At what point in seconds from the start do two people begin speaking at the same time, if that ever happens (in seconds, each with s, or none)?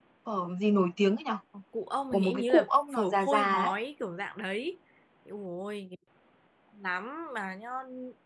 2.1 s